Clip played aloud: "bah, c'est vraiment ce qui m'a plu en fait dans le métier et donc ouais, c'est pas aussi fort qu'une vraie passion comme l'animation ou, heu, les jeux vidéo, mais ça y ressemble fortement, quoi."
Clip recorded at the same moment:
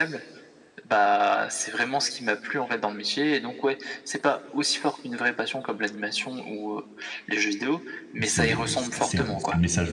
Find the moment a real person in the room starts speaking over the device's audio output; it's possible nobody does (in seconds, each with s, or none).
8.2 s